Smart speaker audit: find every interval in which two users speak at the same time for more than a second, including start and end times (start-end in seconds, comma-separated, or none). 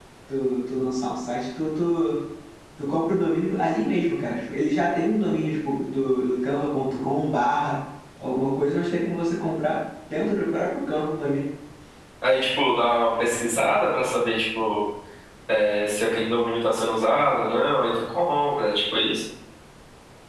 none